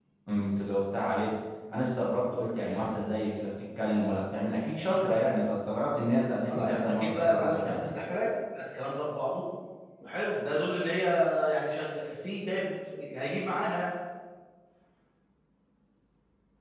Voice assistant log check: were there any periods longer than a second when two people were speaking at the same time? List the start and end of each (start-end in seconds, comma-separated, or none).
6.5-7.8